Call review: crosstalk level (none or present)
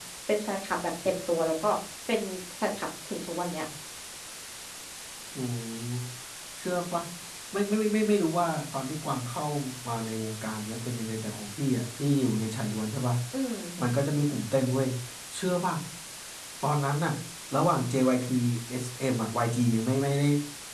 none